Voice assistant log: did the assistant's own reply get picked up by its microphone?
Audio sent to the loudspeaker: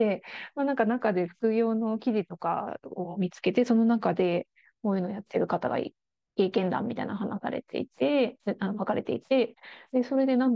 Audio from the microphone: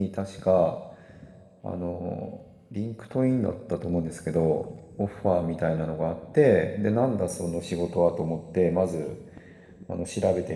No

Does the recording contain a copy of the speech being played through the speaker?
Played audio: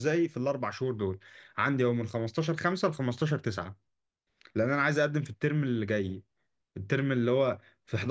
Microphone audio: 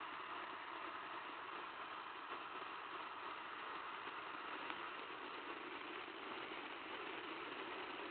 No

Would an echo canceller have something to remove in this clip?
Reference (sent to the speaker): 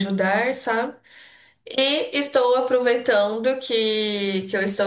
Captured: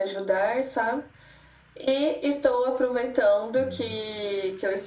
Yes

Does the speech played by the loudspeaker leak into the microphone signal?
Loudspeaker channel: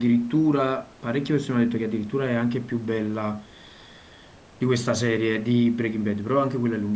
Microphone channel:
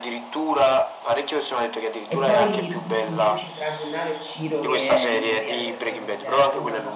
Yes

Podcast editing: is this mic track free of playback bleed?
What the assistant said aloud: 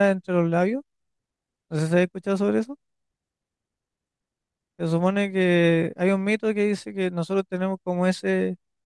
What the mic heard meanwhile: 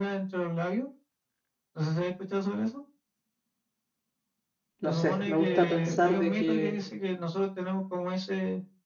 No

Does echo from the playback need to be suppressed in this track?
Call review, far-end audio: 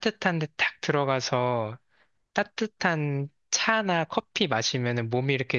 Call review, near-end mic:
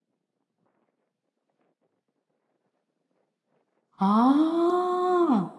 No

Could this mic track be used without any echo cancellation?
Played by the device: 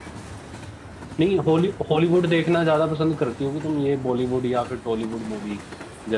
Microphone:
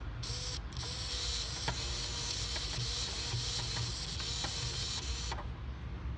Yes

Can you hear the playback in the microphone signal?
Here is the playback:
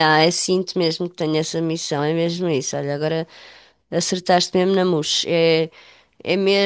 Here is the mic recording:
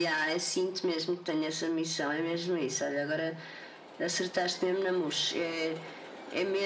Yes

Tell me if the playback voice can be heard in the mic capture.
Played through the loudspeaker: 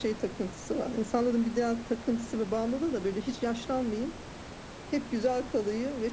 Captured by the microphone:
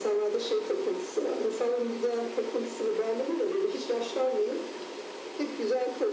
Yes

